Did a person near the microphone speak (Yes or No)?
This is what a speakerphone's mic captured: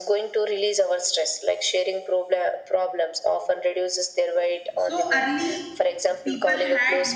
Yes